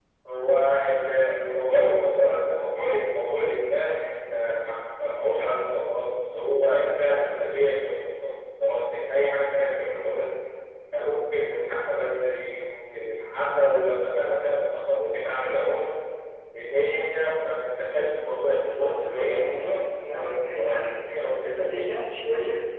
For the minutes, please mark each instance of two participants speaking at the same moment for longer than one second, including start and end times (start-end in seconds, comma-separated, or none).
18.6-22.0